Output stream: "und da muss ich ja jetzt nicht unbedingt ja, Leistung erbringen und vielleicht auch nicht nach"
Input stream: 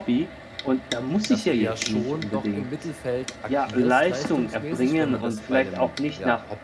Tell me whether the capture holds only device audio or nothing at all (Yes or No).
No